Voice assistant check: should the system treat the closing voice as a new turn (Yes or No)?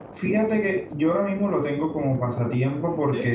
No